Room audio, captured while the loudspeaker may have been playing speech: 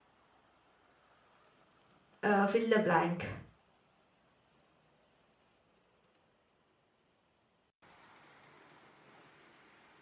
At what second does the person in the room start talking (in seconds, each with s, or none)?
2.2 s